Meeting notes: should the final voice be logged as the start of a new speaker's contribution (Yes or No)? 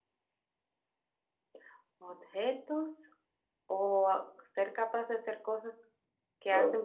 Yes